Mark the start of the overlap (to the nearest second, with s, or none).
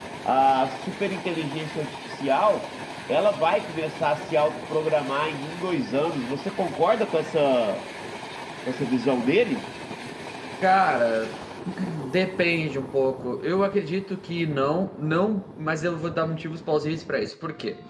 none